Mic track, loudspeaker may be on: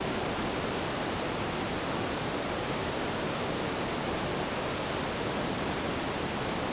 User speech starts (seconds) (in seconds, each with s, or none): none